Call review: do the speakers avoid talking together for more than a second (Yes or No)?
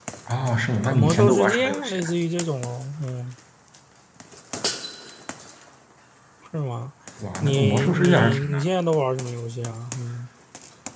No